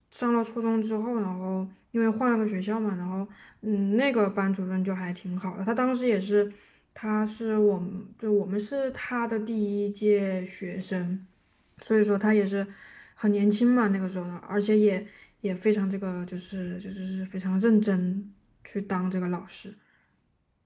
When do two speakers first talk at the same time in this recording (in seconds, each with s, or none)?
none